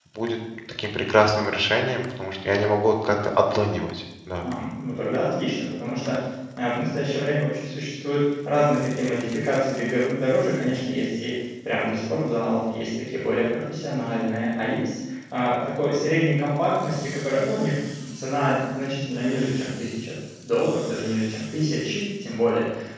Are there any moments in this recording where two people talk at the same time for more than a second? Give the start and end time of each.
none

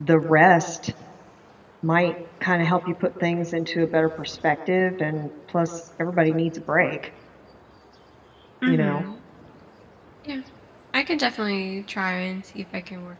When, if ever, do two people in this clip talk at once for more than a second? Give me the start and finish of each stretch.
none

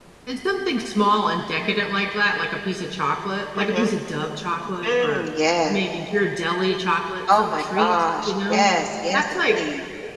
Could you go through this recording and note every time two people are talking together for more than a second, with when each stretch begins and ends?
7.3-8.7

